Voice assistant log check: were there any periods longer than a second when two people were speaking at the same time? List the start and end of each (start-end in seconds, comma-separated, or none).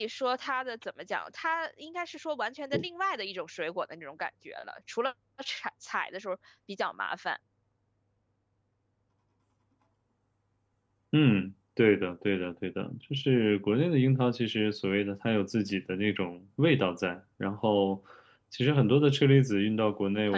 none